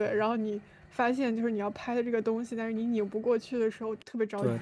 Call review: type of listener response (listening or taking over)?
taking over